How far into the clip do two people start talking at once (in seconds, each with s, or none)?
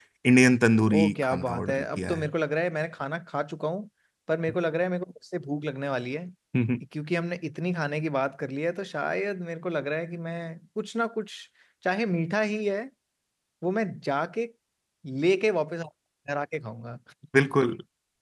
1.0 s